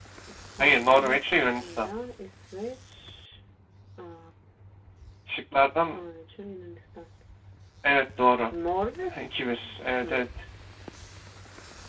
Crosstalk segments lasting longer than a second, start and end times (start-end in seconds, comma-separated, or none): 0.6-1.9